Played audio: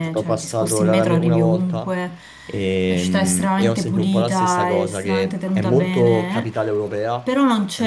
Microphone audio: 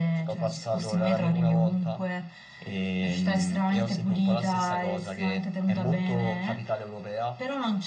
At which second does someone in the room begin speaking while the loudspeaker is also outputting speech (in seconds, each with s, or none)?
none